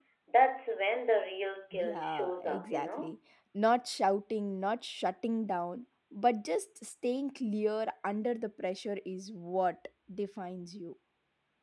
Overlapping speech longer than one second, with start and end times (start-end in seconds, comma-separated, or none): 1.7-3.1